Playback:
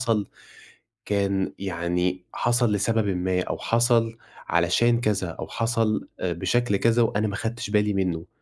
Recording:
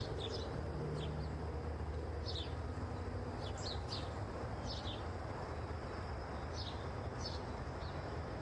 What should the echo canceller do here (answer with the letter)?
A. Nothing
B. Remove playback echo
A